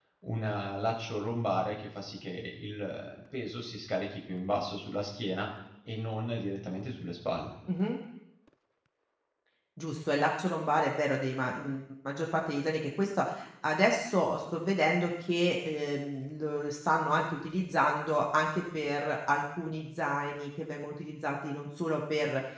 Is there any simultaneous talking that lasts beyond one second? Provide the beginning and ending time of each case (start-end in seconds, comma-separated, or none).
none